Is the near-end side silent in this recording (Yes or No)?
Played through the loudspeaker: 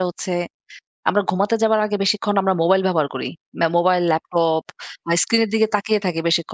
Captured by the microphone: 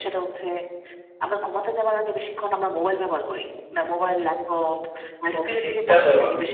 No